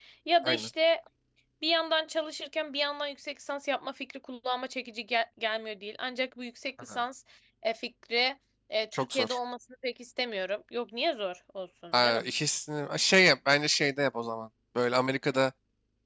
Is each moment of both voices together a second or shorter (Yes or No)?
Yes